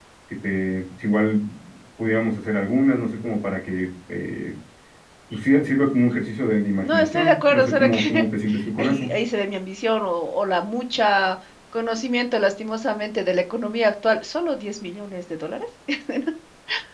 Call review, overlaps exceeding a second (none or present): present